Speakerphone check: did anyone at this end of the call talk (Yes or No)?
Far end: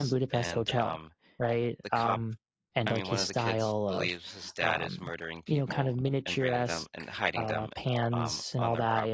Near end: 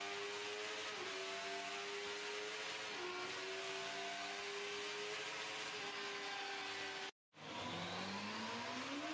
No